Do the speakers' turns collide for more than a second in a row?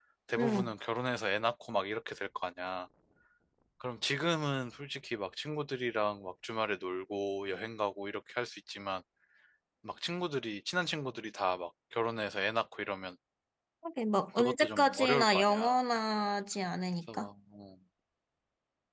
Yes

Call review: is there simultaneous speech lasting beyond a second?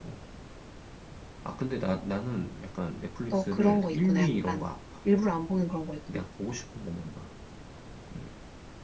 Yes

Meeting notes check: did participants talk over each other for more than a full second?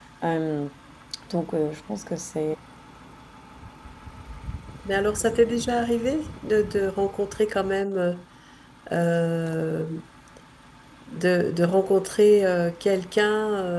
No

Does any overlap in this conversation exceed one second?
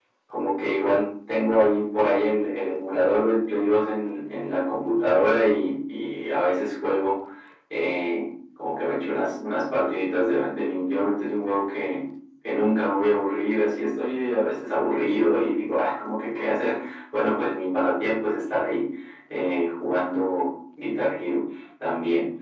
No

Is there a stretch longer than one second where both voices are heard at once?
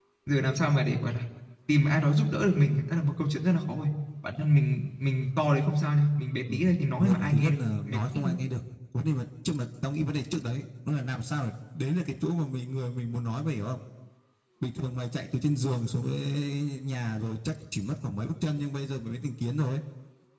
Yes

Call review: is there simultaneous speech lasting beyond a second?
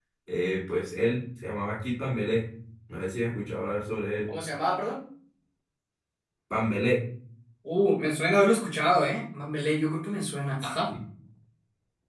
No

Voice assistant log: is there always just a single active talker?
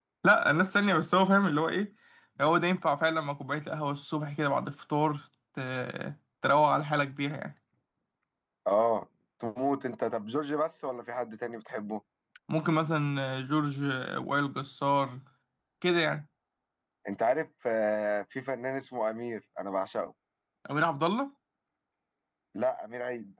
Yes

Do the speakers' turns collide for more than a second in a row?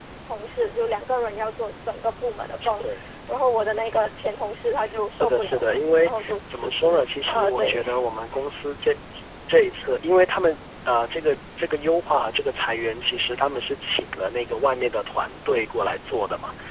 Yes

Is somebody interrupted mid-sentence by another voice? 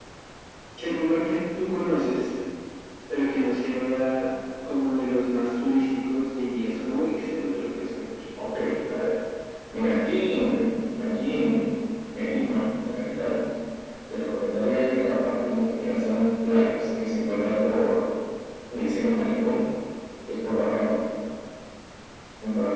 No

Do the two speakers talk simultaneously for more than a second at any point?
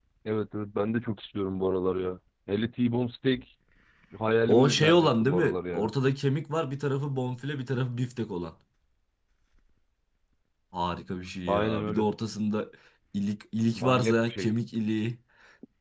Yes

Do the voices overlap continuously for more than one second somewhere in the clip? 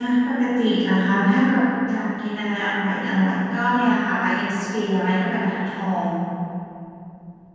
No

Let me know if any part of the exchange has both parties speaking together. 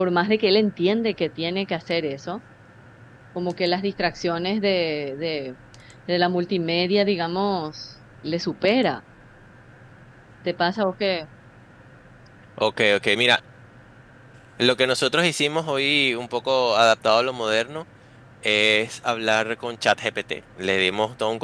No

